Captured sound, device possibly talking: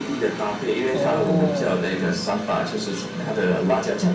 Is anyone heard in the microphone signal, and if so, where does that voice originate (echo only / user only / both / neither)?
both